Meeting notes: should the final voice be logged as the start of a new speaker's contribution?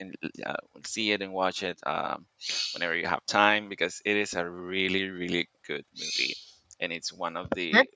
No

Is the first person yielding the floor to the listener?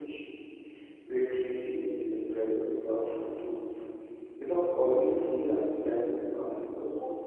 Yes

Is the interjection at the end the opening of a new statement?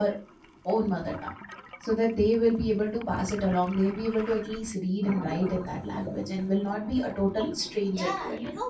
Yes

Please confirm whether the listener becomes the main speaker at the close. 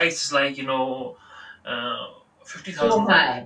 No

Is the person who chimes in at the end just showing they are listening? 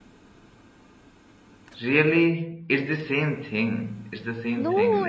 No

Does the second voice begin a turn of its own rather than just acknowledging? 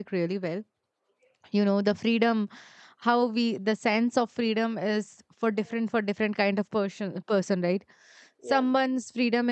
No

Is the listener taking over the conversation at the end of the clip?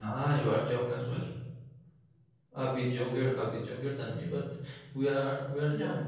No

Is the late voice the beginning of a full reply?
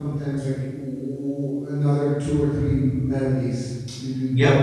Yes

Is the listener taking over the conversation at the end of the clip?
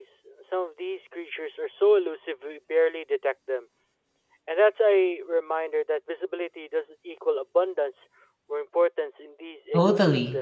Yes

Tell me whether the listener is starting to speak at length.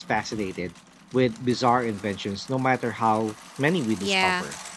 Yes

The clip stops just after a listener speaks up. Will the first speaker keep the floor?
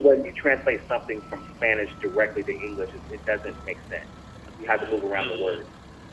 No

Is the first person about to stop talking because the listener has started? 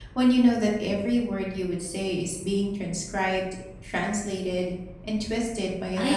Yes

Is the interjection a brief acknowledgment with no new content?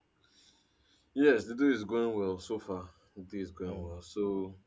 Yes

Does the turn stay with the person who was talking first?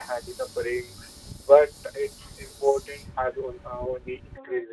No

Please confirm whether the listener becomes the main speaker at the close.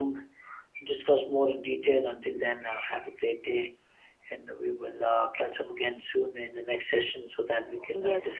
Yes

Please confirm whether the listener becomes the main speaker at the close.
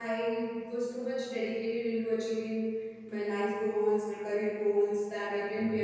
No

